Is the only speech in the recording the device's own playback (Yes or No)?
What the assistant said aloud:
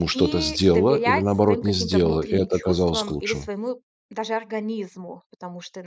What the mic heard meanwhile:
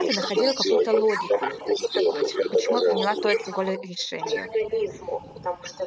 No